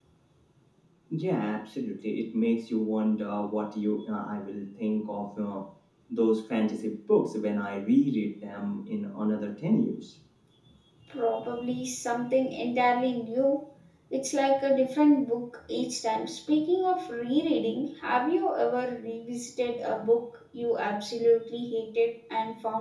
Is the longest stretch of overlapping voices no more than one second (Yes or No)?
Yes